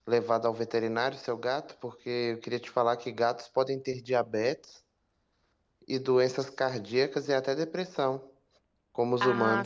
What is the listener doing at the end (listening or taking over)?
taking over